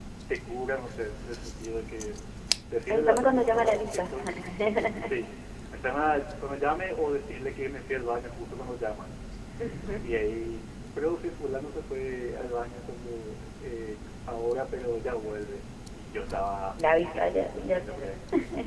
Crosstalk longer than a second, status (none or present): present